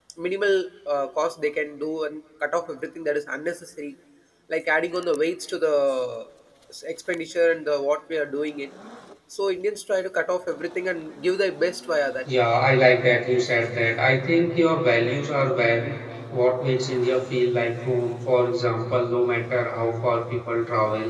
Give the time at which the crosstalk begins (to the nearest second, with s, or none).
none